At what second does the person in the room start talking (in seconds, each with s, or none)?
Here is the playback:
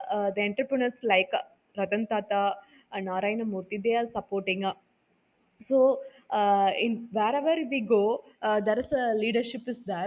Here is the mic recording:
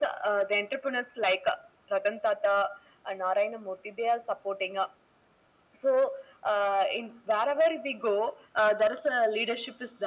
none